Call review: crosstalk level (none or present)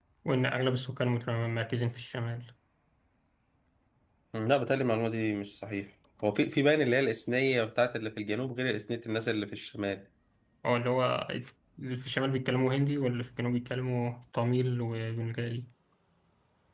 none